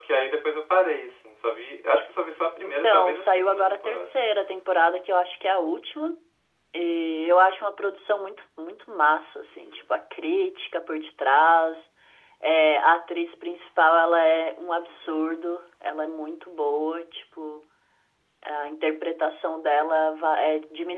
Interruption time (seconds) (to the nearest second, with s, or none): 3 s